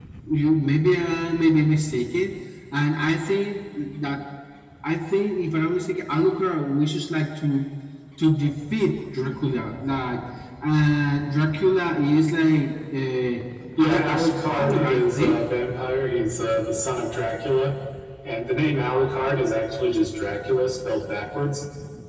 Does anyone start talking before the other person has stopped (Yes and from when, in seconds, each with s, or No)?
Yes, from 13.8 s